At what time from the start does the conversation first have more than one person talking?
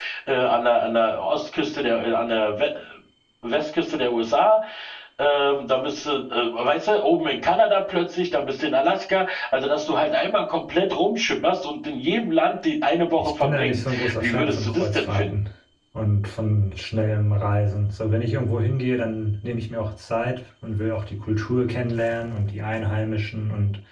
13.2 s

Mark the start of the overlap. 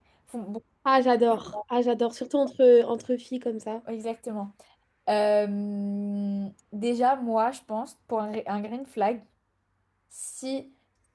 none

